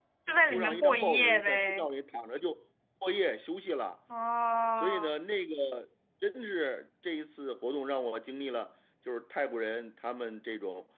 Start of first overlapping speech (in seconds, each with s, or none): 0.5 s